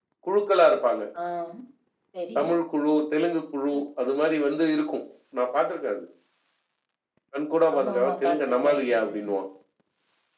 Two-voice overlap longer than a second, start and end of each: 7.8-9.3

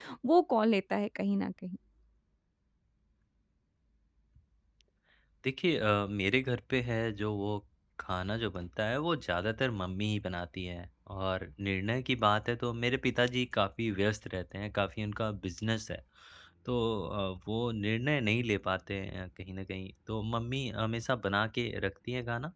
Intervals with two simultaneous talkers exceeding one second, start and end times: none

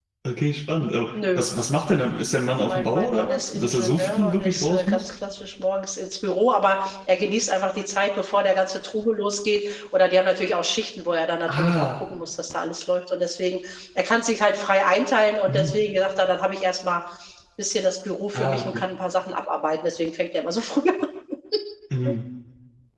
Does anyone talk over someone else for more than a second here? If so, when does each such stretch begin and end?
2.4-5.0

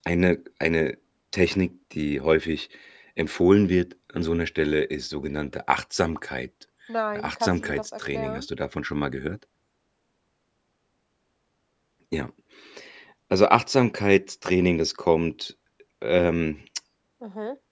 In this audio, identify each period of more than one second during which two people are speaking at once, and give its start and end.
7.2-8.5

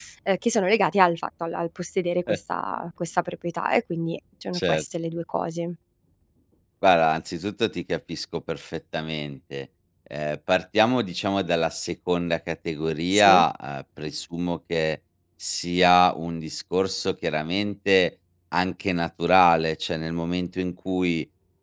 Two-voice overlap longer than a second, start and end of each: none

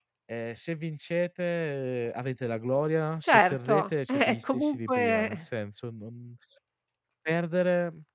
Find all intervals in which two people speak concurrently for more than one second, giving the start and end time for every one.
3.2-5.4

